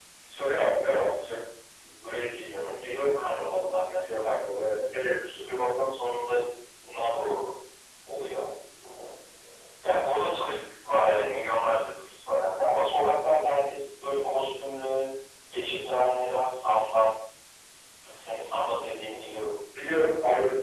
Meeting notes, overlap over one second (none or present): none